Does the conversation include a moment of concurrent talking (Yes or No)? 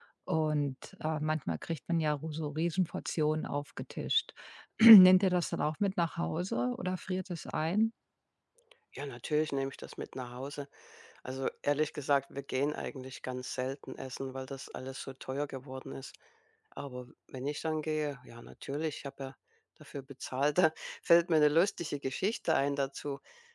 No